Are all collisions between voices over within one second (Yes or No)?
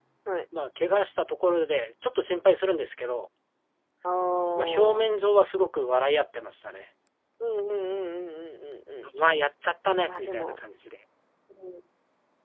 Yes